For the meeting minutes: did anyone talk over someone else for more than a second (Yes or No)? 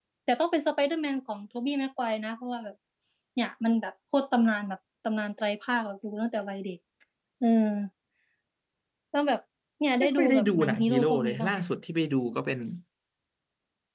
Yes